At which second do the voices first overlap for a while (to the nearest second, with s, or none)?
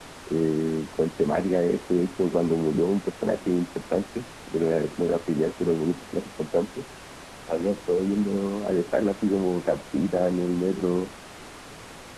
none